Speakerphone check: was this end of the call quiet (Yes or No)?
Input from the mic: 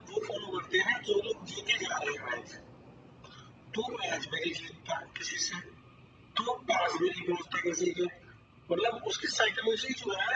Yes